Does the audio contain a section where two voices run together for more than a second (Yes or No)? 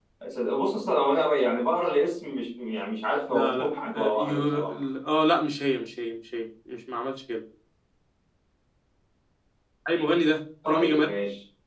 Yes